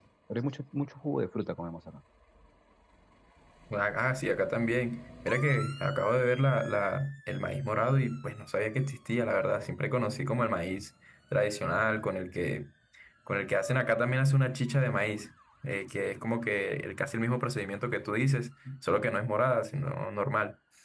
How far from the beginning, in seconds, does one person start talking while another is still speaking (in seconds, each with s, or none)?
none